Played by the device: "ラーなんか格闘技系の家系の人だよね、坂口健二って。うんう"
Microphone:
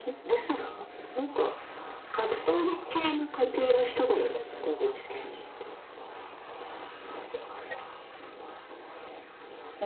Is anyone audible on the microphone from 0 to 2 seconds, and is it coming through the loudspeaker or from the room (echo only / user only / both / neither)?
echo only